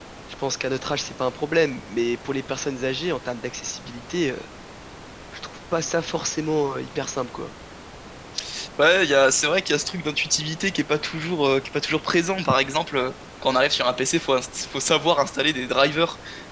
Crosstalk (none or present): none